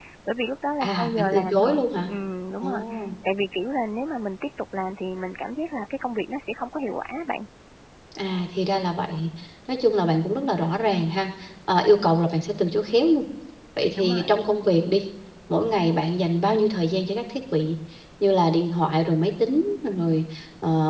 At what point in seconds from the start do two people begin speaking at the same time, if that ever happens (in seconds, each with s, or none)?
0.8 s